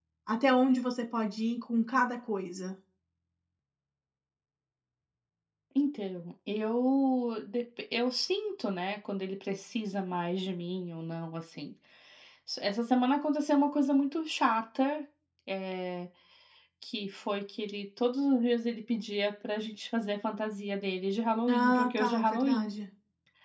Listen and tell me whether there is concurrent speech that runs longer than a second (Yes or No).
Yes